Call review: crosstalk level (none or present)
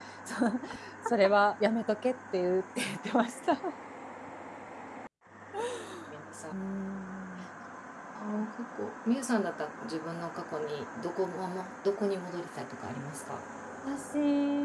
none